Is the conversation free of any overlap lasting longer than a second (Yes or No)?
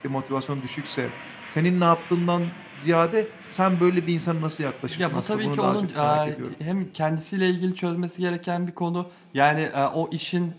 No